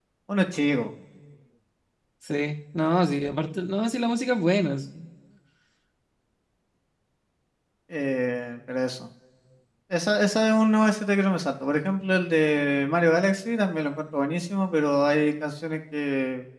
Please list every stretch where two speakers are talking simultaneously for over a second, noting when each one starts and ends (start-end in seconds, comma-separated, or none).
none